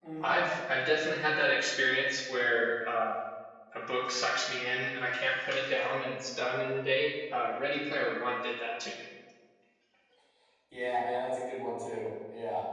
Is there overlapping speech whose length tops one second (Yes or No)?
No